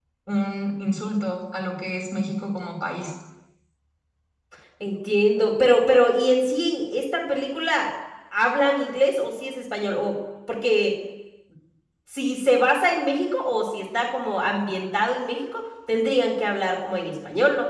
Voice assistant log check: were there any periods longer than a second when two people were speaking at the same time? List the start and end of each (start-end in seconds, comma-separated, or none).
none